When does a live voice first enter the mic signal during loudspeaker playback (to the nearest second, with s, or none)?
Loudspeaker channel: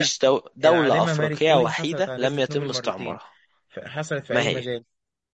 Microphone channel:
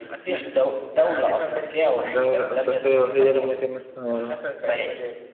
2 s